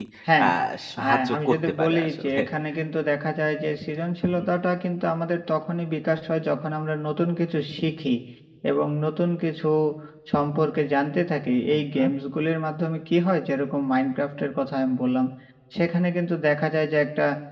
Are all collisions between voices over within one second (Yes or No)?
No